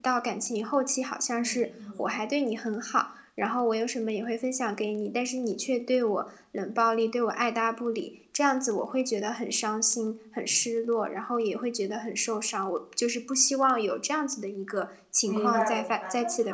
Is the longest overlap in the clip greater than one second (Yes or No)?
Yes